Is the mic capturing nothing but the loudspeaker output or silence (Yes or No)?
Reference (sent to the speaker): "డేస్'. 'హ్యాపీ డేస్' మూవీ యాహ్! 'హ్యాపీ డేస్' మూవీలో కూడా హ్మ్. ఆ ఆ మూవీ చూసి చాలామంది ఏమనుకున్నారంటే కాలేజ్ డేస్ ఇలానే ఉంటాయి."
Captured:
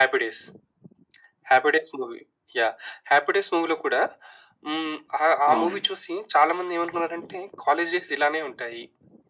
No